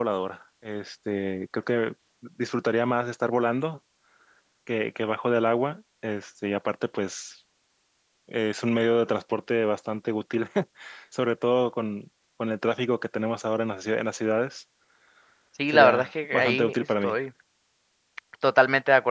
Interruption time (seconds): 15.7 s

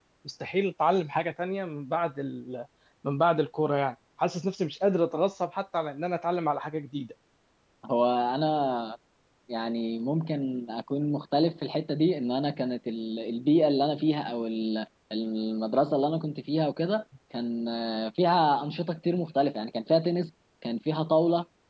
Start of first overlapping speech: none

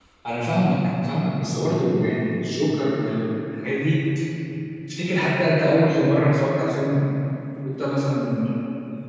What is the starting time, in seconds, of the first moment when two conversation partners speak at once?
none

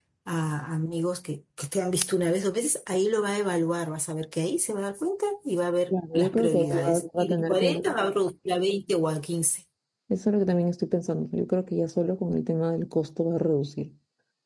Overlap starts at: 5.9 s

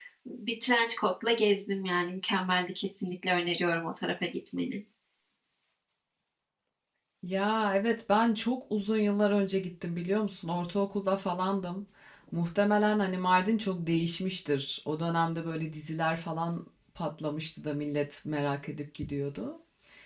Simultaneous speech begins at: none

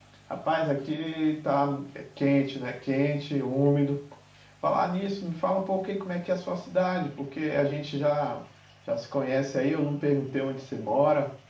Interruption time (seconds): none

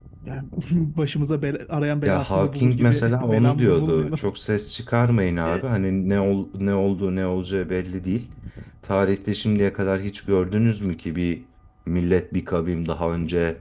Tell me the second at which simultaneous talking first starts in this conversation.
2.0 s

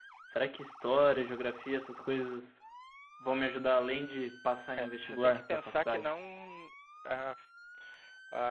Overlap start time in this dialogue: 4.8 s

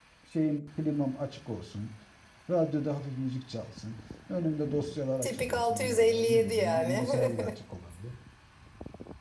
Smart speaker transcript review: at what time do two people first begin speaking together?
5.2 s

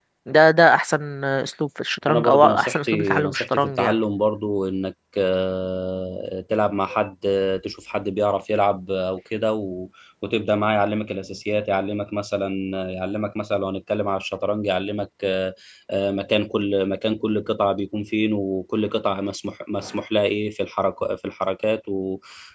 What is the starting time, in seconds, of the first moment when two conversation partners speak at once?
2.1 s

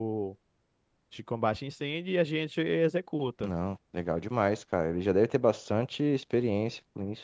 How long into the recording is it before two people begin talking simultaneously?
none

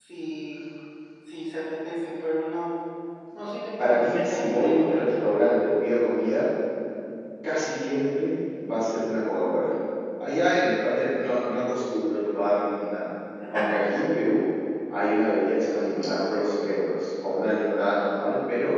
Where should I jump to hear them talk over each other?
3.8 s

